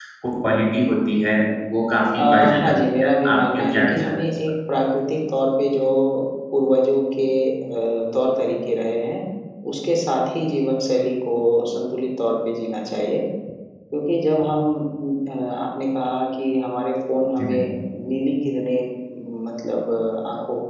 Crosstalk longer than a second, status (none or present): present